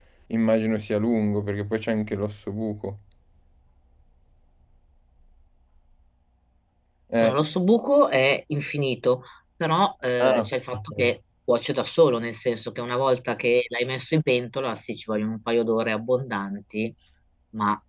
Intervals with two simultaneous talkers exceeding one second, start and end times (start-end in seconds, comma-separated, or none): none